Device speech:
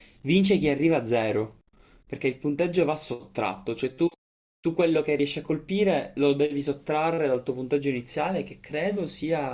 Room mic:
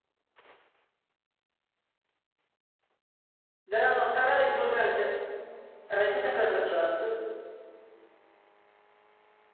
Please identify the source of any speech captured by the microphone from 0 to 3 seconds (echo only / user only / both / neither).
neither